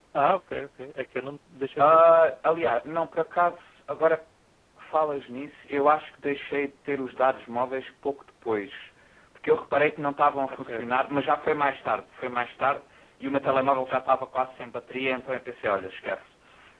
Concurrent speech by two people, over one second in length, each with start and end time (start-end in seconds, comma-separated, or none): none